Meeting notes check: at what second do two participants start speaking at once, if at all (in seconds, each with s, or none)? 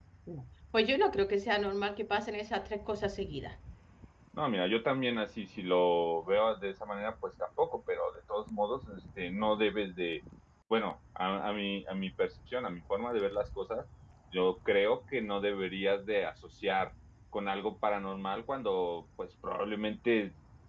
none